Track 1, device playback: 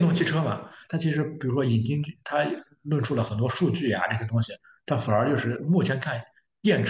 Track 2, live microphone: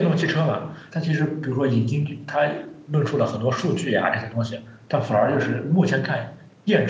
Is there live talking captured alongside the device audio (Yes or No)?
No